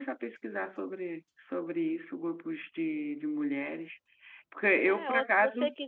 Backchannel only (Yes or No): No